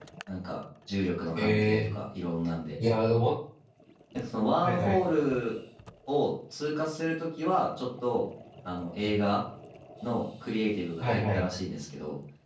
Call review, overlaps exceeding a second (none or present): none